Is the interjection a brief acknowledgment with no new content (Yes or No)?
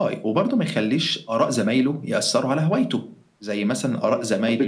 No